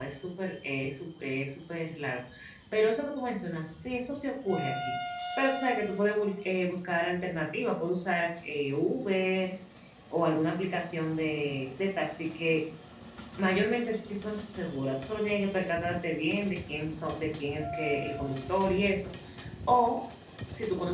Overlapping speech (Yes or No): No